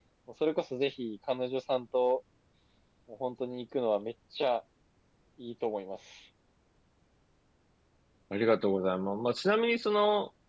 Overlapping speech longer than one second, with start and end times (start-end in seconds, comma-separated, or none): none